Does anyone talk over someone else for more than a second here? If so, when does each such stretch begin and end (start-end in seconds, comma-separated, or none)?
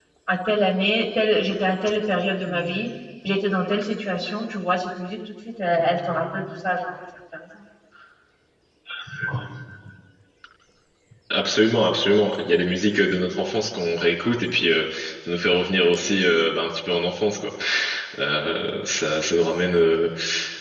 none